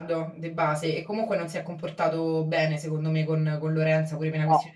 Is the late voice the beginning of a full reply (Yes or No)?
No